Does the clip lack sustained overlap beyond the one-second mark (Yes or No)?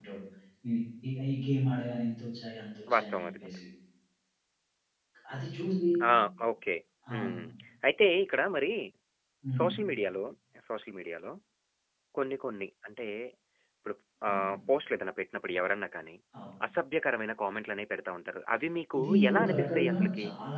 No